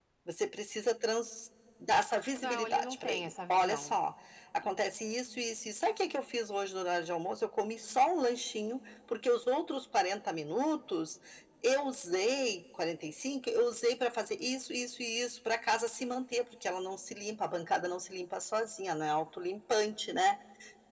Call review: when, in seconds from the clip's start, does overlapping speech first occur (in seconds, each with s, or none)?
2.4 s